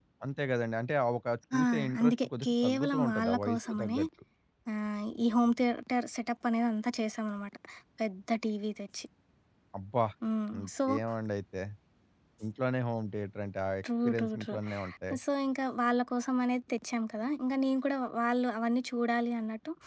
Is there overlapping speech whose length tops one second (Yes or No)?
Yes